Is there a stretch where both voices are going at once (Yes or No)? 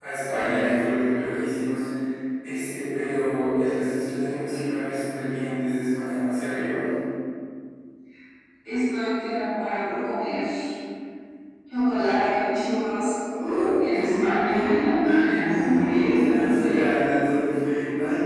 Yes